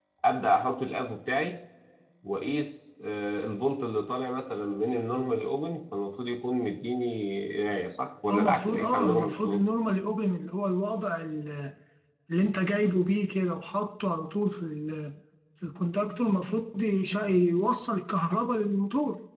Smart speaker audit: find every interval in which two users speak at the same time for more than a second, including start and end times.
8.3-9.7

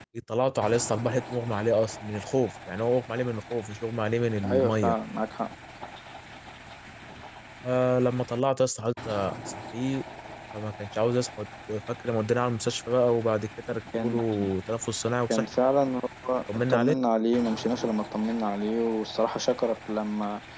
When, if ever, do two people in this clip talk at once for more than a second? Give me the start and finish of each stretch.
none

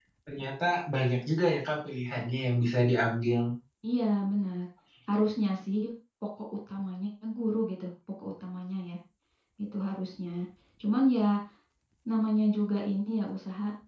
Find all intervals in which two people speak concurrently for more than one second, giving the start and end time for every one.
none

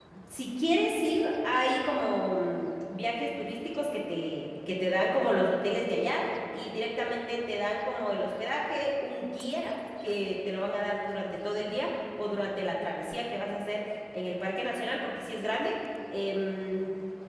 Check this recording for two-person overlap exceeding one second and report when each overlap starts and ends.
none

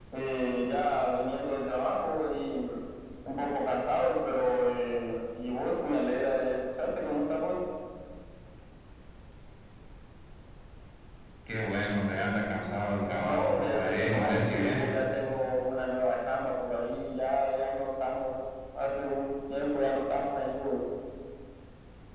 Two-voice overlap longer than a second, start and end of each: 13.2-14.9

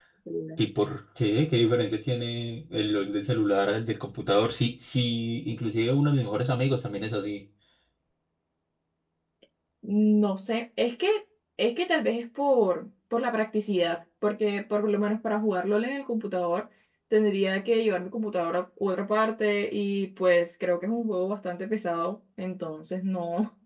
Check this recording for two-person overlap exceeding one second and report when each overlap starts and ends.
none

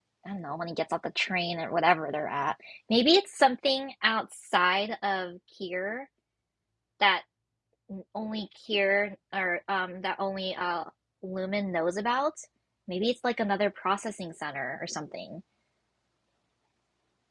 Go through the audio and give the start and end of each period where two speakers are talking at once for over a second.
none

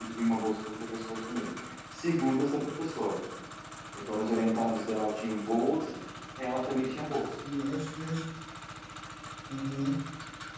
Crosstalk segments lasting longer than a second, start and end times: none

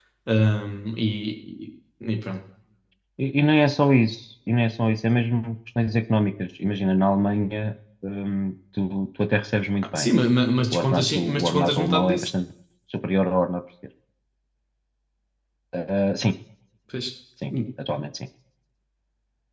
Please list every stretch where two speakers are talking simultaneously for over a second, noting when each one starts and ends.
10.7-12.3

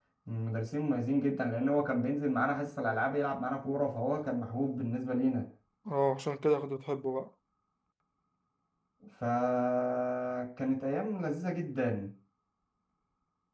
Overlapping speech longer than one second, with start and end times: none

